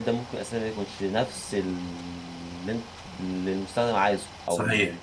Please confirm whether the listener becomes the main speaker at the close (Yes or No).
Yes